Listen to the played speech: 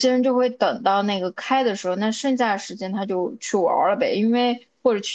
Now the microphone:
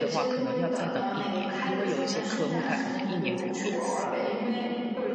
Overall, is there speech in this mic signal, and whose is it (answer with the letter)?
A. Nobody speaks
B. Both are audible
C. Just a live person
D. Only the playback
B